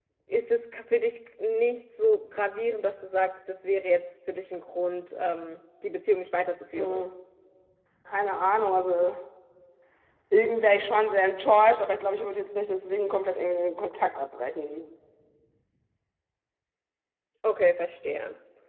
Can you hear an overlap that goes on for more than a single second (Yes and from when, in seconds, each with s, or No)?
No